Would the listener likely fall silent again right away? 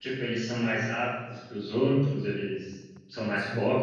No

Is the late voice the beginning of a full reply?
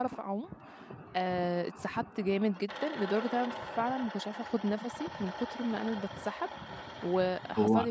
No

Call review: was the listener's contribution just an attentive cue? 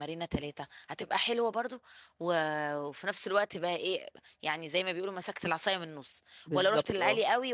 Yes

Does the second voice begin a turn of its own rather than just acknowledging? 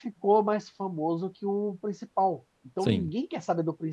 No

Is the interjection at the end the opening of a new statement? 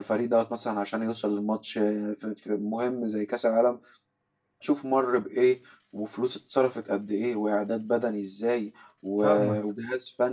No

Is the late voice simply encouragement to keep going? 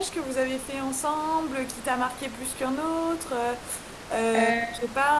Yes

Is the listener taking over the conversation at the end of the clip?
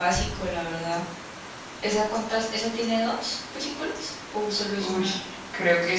Yes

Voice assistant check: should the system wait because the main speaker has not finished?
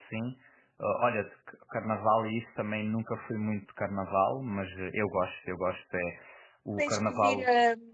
No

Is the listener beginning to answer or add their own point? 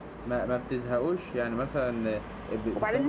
Yes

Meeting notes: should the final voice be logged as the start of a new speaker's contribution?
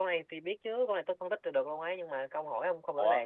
Yes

